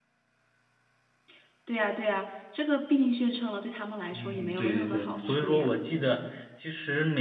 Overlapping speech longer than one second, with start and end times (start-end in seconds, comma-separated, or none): 4.1-5.8